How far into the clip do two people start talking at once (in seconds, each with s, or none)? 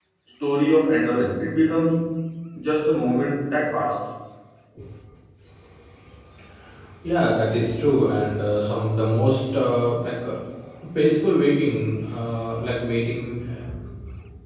none